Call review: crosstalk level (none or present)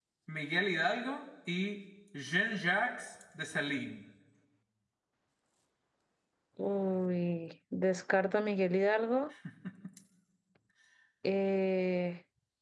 none